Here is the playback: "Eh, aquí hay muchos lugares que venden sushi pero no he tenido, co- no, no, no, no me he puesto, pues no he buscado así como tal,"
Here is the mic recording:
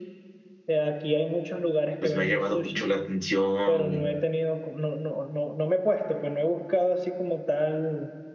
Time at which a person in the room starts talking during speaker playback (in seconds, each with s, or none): 2.0 s